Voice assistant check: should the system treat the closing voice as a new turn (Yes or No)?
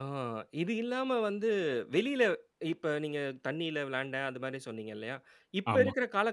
No